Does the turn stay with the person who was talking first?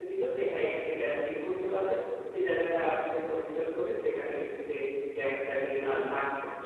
No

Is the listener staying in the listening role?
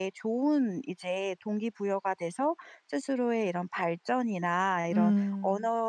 Yes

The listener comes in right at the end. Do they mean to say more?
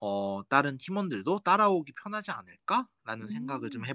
Yes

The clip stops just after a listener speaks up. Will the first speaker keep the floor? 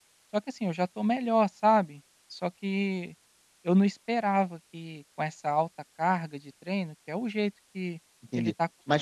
No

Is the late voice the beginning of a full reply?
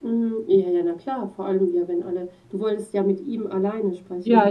Yes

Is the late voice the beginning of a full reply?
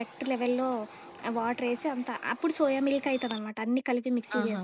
No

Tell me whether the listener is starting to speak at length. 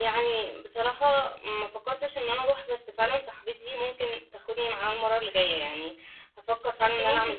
Yes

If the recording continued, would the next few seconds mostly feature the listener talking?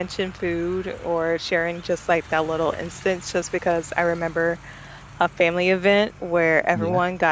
No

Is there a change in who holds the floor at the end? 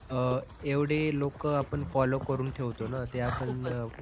No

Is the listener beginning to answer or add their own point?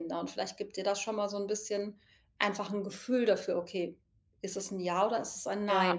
No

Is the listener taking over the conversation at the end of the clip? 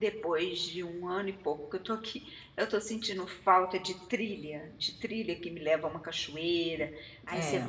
No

